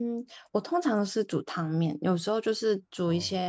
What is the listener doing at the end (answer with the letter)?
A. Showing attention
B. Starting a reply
A